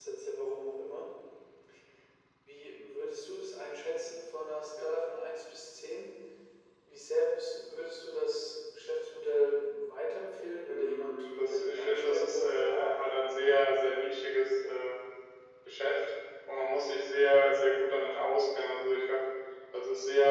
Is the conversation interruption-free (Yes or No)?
No